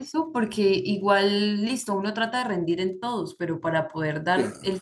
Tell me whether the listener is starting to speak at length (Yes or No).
No